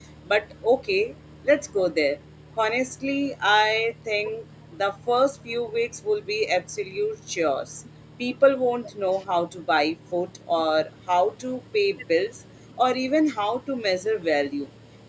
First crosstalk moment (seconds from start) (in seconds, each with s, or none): none